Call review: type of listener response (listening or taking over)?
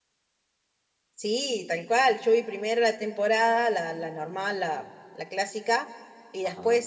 listening